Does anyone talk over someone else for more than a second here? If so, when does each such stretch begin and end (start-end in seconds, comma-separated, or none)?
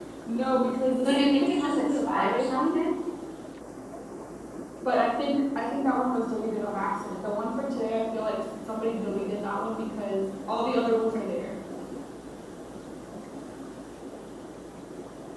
1.1-2.8